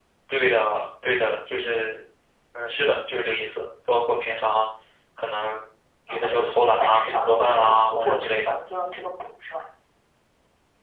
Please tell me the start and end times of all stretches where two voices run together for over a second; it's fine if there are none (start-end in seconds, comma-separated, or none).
6.1-8.6